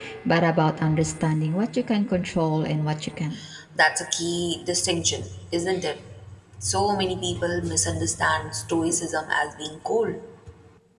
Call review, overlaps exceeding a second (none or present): none